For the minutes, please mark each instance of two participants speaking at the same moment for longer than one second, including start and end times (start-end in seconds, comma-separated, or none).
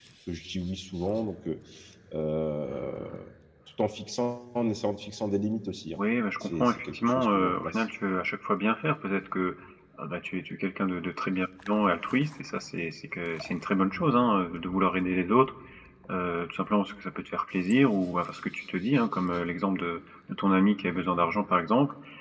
6.4-7.8